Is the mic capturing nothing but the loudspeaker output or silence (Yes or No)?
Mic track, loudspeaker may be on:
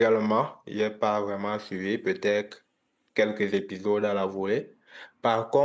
No